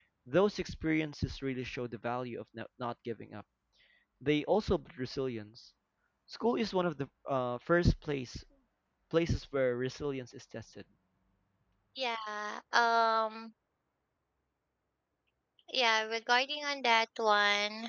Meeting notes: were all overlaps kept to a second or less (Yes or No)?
Yes